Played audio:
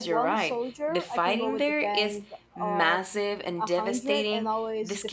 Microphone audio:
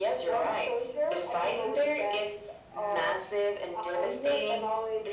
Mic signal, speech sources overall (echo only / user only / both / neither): echo only